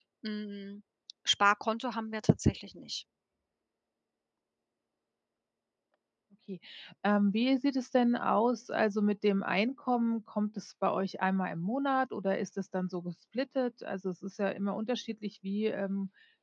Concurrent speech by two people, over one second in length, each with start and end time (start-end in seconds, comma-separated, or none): none